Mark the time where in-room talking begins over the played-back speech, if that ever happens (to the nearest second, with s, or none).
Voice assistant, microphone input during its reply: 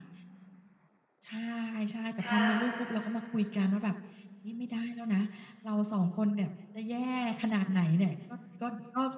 2 s